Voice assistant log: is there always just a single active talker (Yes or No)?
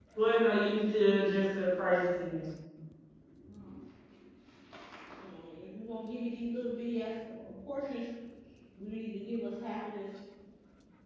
Yes